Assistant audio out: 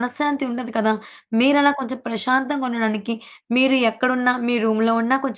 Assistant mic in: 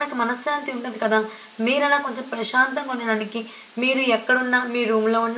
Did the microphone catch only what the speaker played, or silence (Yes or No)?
Yes